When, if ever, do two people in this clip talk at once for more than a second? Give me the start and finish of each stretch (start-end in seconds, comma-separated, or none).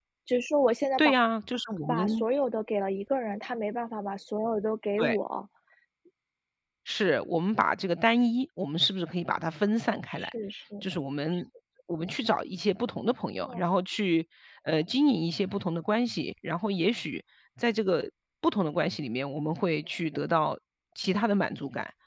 none